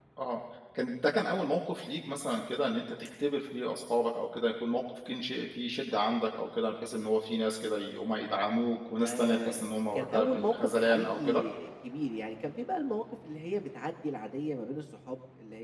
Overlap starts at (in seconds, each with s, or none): 9.0 s